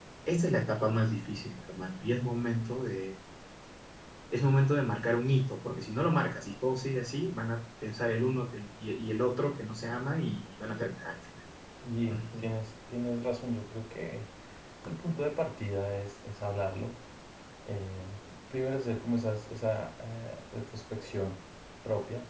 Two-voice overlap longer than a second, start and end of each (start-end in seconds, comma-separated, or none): none